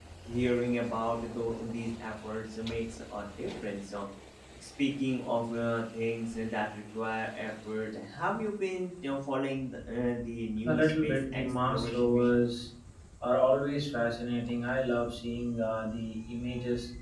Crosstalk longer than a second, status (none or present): present